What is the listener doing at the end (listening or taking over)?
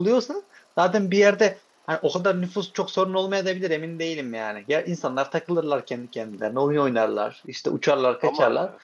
listening